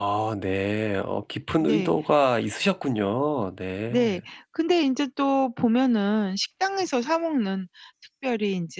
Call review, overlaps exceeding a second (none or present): none